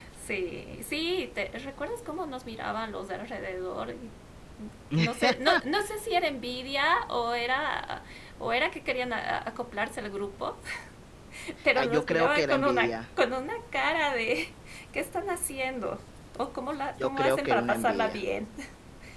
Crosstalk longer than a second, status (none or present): present